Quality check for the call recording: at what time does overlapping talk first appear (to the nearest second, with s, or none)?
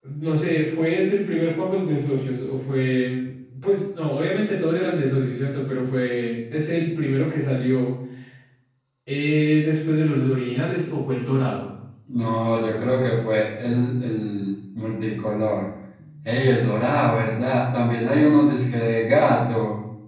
none